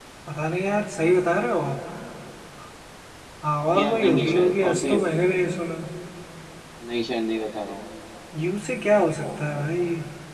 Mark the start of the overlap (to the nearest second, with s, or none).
4 s